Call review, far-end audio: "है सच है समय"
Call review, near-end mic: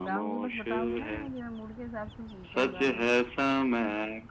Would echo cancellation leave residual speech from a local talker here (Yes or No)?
Yes